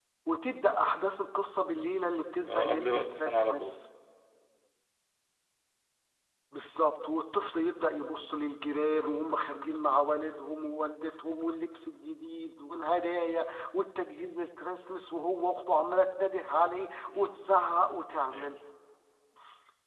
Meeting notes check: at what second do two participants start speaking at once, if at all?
2 s

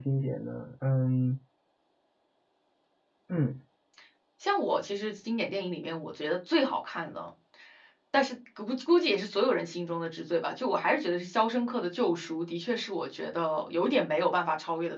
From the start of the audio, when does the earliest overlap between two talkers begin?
none

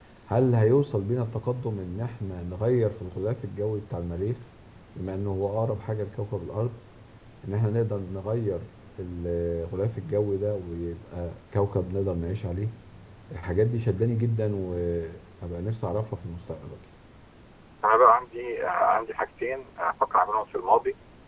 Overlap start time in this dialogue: none

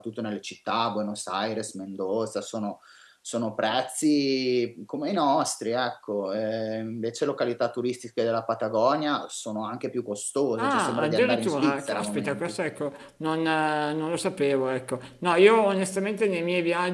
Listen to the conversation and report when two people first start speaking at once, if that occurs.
11 s

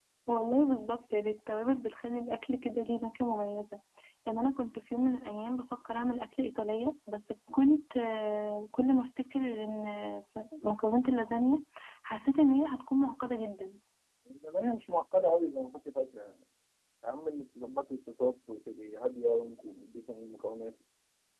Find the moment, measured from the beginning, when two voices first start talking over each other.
none

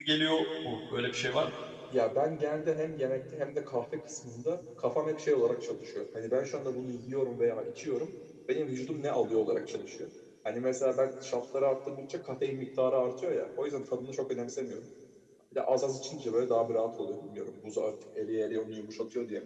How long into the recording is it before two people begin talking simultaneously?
none

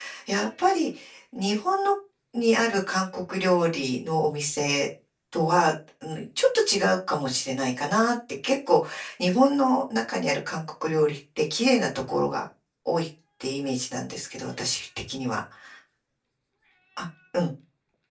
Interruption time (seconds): none

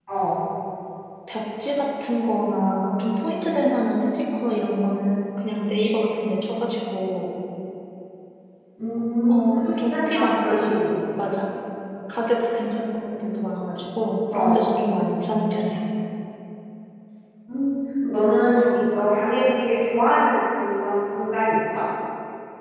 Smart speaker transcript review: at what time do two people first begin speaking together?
9 s

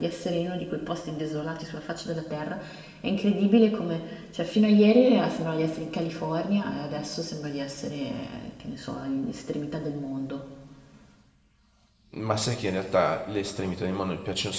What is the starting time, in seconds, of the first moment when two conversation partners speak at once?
none

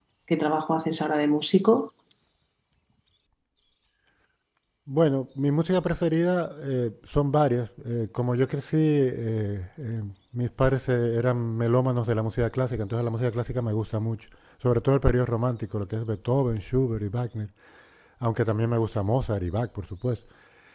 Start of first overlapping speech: none

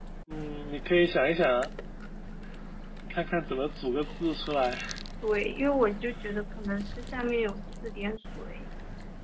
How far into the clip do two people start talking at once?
none

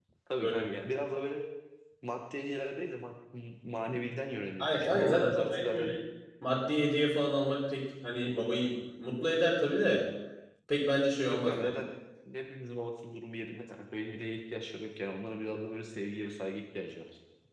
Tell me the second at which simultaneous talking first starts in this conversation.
5 s

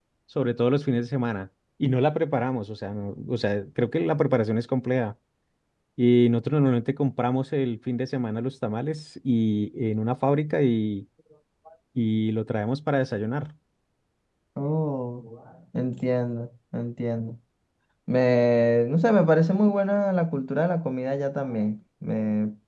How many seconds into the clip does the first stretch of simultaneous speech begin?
none

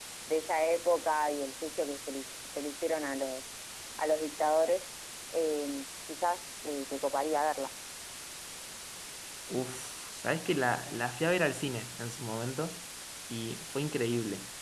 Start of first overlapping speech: none

